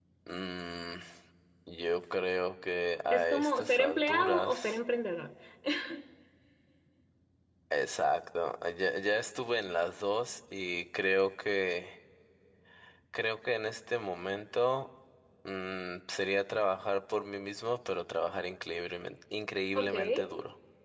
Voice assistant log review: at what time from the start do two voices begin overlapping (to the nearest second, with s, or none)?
3 s